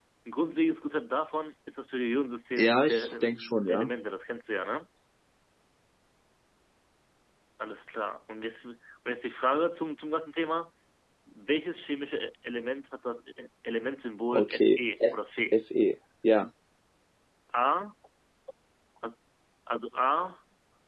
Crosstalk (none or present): present